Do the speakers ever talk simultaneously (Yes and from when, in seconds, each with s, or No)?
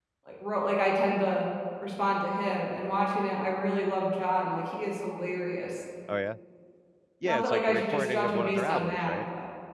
Yes, from 7.2 s